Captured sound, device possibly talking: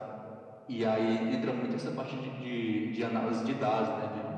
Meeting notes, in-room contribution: none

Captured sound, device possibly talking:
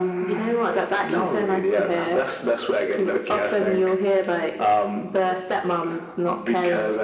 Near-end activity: none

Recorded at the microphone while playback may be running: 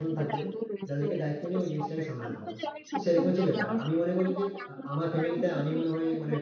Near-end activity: present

